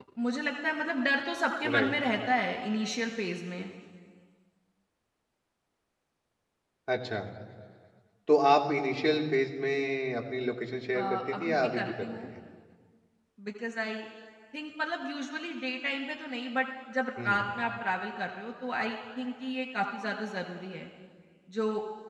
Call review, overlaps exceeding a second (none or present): present